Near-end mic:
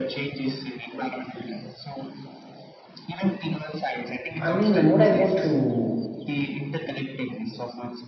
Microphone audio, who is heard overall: both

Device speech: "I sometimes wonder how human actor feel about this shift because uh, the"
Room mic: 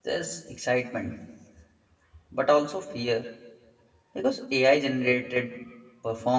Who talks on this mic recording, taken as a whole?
user only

